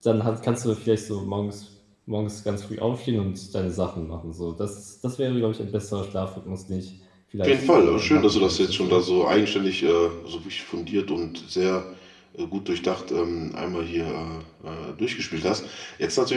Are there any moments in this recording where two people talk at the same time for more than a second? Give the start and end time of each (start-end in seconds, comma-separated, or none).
7.4-9.0